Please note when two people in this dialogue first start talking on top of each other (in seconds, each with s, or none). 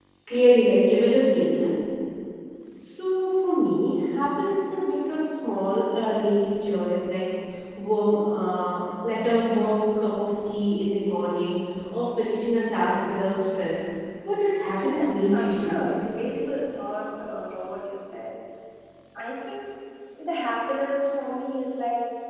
14.4 s